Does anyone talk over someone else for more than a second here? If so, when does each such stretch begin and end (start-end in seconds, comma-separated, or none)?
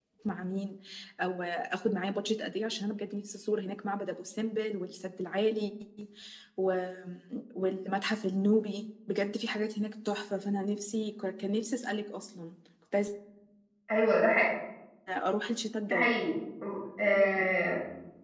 none